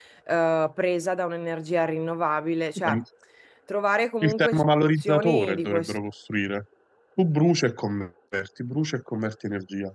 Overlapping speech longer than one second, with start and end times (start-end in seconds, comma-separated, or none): 4.2-5.9